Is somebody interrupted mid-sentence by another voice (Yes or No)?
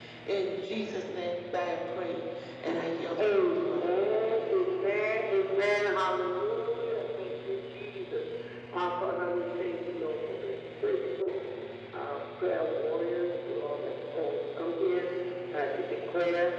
Yes